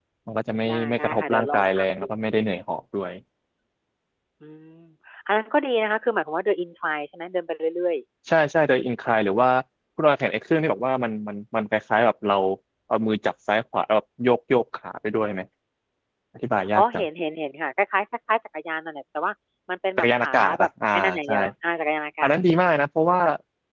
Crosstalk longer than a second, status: present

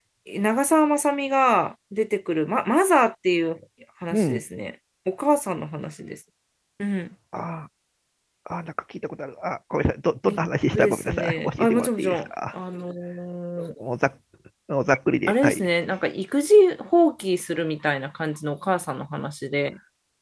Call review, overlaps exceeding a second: present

